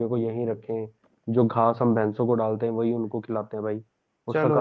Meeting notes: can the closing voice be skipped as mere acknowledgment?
No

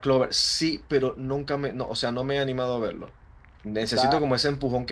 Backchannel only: Yes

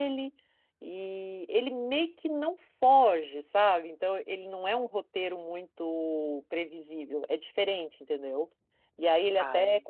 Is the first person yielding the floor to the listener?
No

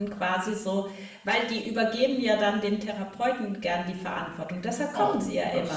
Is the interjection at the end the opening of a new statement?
Yes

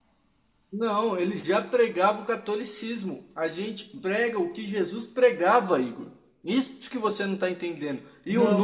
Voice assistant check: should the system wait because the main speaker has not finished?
Yes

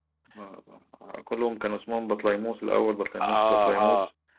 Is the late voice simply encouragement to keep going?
No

